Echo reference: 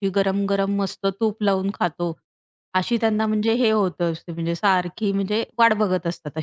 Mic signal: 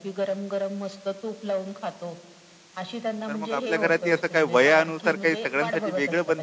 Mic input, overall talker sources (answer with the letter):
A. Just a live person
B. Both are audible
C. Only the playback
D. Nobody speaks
B